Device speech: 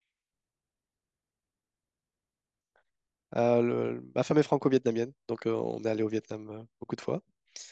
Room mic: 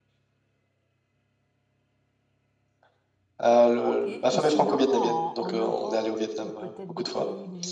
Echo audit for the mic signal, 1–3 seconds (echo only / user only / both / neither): neither